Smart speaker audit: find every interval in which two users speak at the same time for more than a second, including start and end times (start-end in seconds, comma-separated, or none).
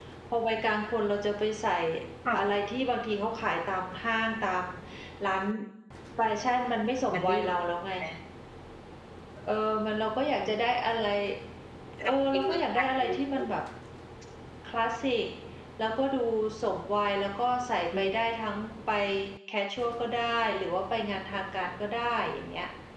12.0-13.4